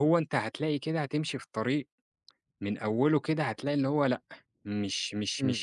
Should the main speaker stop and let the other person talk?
No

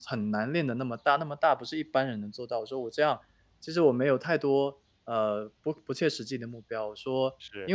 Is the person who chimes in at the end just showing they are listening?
Yes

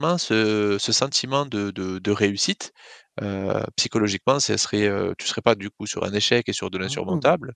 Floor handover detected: No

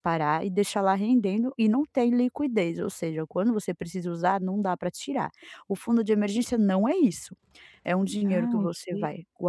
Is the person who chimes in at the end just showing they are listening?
Yes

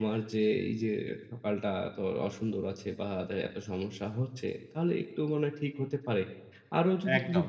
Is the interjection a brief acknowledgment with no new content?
Yes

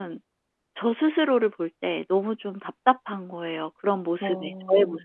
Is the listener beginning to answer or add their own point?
Yes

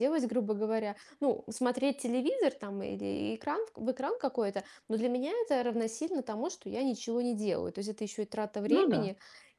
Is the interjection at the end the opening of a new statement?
No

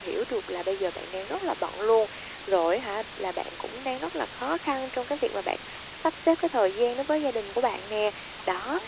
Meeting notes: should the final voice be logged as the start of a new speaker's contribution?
No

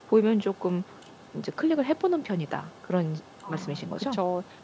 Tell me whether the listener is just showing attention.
No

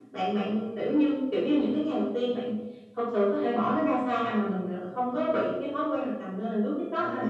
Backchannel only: No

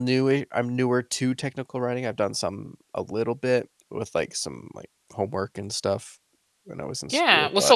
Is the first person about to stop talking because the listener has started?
Yes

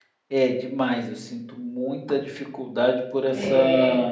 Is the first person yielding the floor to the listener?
No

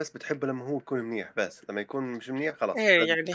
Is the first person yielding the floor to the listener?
Yes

